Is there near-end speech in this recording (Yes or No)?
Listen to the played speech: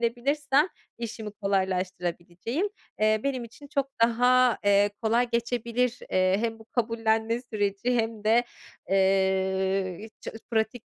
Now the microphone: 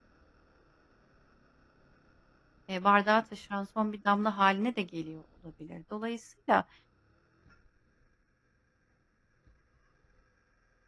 Yes